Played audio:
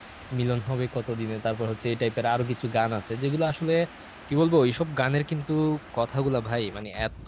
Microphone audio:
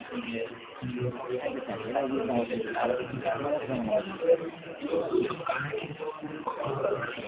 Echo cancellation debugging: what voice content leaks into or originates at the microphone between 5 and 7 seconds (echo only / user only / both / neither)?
echo only